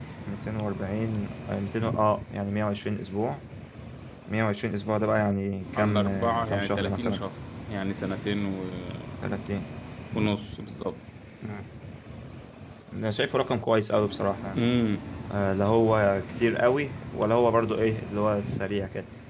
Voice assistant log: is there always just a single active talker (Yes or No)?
No